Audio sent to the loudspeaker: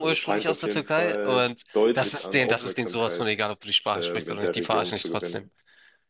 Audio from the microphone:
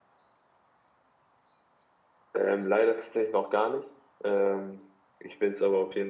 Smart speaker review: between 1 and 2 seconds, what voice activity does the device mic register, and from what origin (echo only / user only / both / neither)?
neither